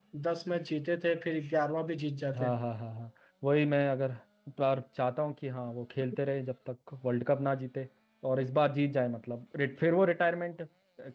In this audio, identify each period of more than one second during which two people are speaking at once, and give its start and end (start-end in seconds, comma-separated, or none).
none